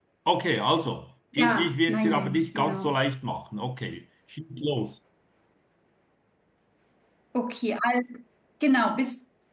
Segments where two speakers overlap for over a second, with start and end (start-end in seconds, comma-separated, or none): 1.4-3.0